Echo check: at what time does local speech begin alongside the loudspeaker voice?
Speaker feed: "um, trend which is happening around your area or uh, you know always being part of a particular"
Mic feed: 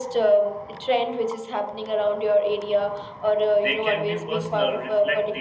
3.6 s

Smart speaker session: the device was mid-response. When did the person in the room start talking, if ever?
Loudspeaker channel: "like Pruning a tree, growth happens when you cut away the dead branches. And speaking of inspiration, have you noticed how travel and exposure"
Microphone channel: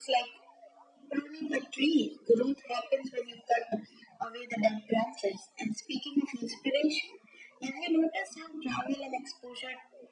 none

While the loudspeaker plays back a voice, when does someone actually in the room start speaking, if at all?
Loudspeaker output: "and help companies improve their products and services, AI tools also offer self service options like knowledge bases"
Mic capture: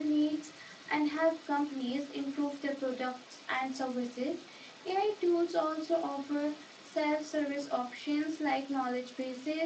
none

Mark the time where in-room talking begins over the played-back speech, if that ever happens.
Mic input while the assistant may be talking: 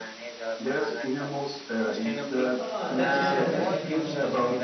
2.6 s

